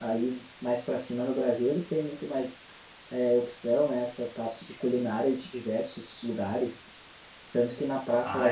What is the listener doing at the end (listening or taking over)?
listening